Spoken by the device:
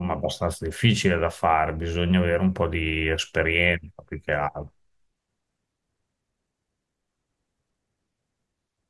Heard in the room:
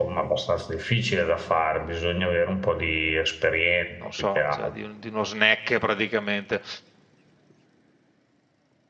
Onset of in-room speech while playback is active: 4.0 s

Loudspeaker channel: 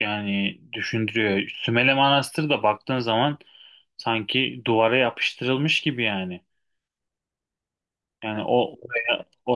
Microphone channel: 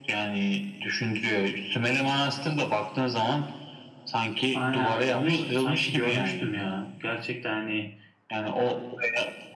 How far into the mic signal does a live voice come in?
4.5 s

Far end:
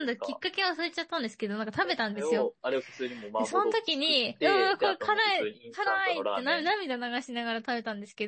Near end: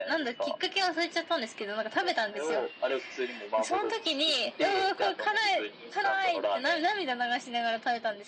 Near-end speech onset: none

